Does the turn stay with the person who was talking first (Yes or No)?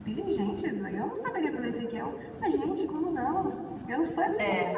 Yes